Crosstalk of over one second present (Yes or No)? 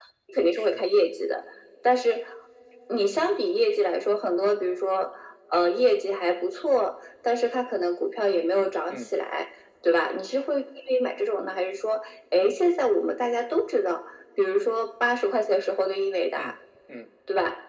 No